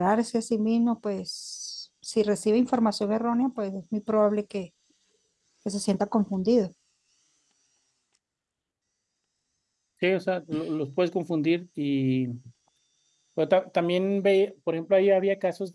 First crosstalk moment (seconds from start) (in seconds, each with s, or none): none